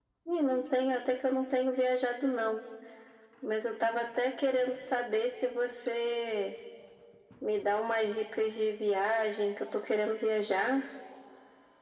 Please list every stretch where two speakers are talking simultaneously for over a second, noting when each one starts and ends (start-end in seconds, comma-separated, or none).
none